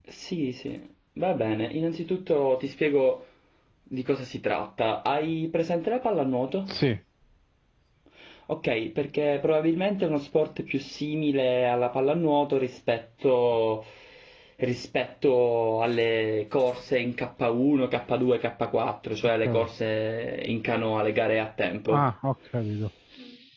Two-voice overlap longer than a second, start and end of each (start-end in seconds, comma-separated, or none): none